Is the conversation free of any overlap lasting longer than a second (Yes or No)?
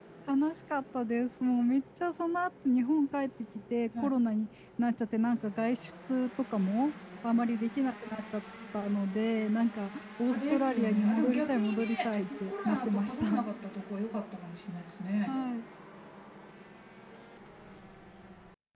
No